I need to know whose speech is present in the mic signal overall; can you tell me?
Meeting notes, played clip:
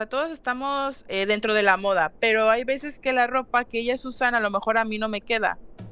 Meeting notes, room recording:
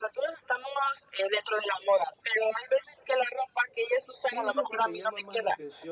both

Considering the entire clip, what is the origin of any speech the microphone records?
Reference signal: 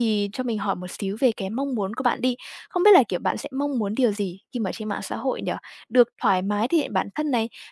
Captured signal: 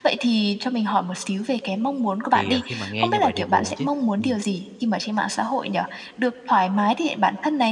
both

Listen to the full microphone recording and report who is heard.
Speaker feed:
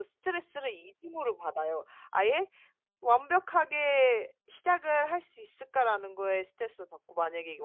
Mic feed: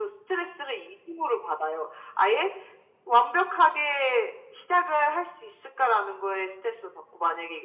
echo only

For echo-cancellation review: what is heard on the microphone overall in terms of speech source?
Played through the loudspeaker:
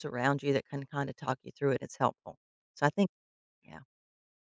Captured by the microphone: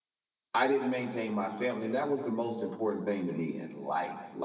user only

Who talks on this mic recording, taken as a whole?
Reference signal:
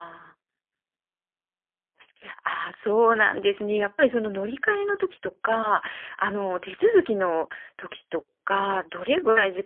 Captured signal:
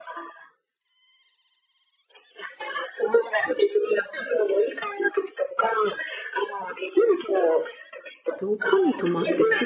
both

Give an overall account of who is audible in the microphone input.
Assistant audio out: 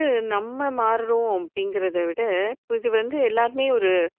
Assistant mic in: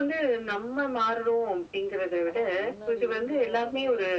both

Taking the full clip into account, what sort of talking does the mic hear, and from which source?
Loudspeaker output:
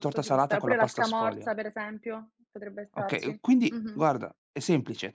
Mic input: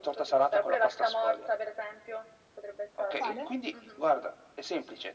both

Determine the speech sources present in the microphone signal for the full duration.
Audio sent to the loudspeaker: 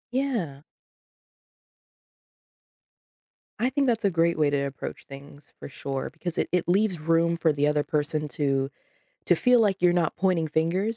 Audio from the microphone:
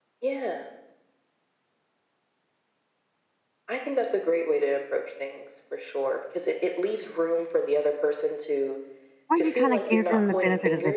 both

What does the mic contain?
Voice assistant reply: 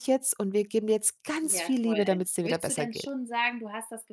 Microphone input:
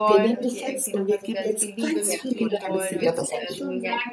both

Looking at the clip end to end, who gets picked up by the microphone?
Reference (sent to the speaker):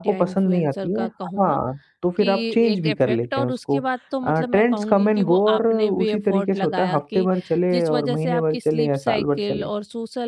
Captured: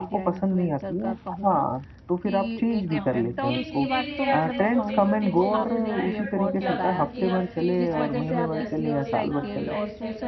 both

